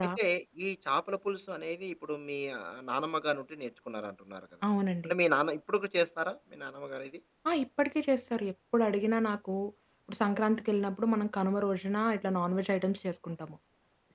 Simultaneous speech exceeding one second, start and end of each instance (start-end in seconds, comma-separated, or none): none